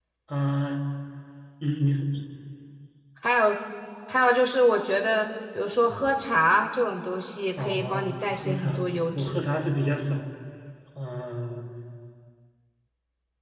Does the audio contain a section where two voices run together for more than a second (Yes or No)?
Yes